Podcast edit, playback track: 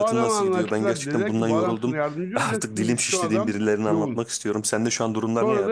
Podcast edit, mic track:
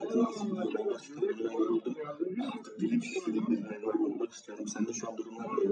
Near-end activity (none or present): none